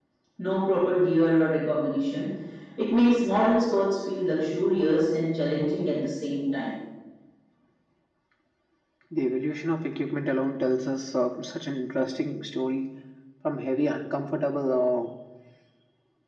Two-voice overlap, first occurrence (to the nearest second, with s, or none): none